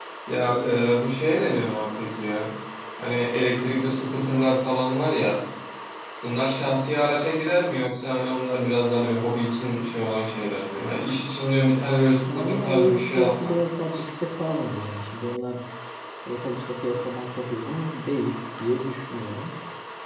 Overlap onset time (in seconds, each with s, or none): 12.2 s